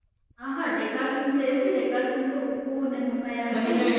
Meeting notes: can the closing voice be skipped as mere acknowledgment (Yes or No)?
Yes